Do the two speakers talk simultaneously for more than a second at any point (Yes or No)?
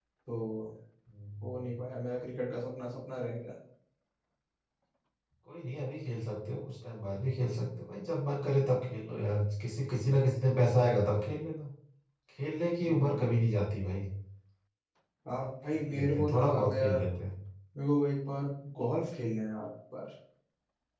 Yes